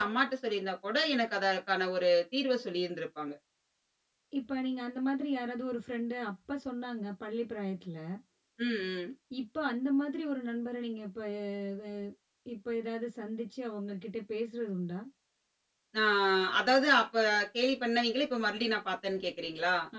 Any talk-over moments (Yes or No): No